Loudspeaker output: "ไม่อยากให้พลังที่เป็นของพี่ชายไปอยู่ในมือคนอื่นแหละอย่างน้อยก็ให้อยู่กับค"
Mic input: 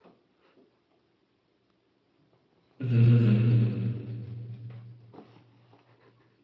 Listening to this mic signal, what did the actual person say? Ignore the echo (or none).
อืมฮึอืมฮึอืมฮึ